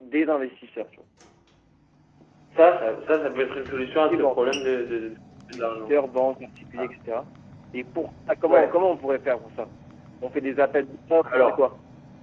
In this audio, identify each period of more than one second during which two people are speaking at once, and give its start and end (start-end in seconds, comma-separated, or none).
none